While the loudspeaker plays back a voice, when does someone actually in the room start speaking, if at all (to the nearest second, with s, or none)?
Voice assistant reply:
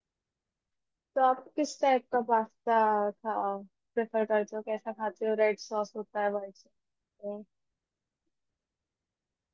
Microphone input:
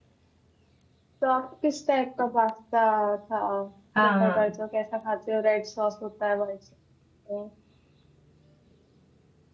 4 s